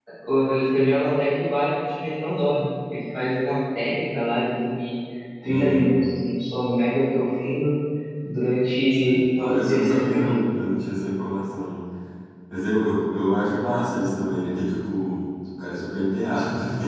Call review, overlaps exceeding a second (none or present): present